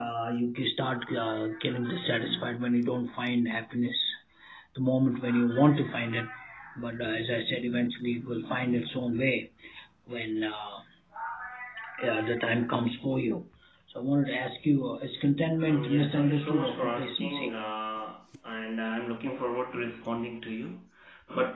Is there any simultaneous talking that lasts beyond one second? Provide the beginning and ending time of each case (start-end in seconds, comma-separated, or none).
15.7-17.5